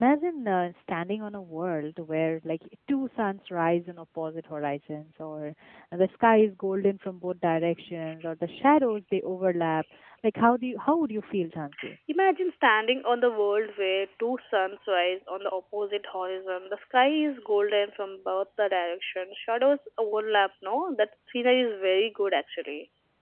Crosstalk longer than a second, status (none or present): none